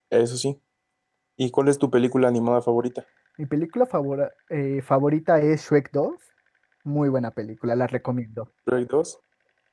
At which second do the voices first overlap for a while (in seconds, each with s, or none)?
none